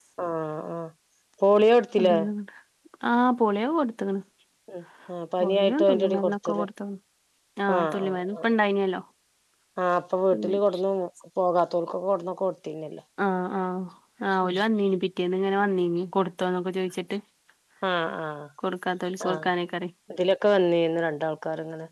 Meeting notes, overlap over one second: present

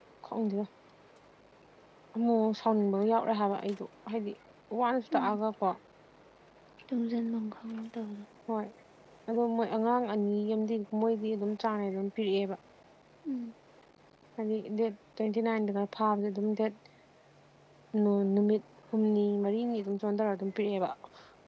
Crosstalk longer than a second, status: none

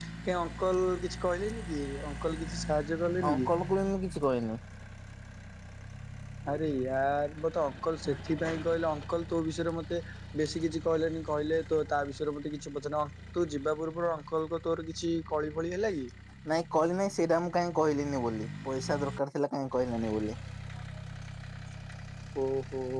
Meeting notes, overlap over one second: none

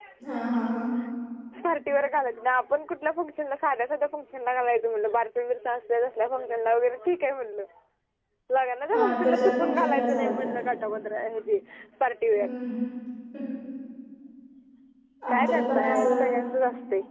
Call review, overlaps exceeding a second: present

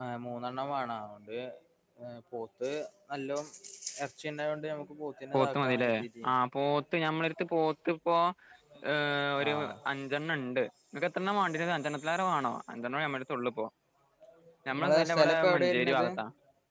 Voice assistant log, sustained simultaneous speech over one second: present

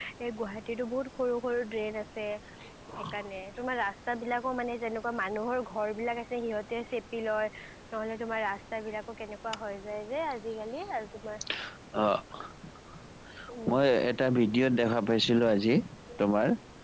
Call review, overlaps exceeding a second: none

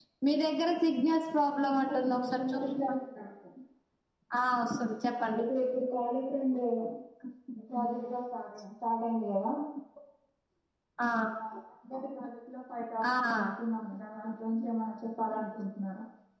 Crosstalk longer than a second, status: present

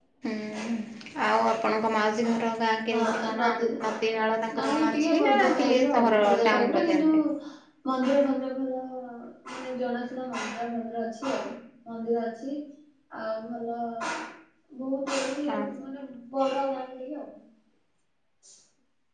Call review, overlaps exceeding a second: present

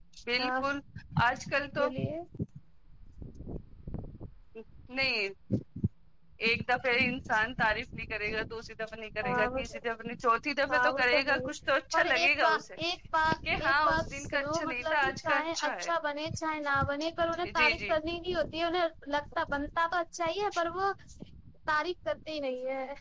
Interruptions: present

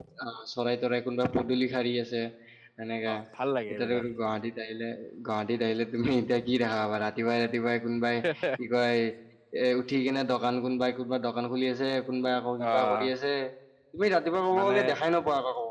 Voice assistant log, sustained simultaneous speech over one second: none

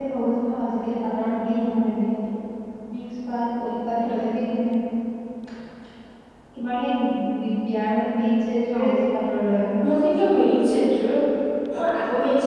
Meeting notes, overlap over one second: none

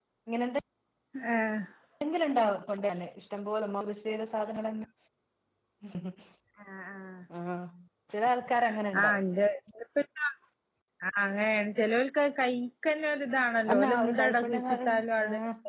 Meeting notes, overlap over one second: present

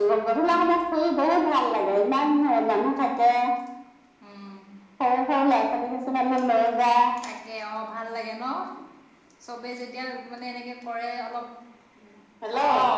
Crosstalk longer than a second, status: none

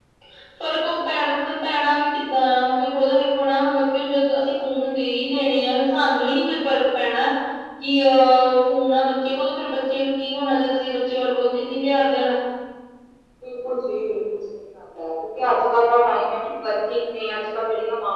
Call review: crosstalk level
none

